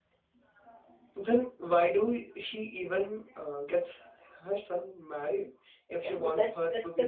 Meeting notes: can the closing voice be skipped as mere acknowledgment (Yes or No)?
No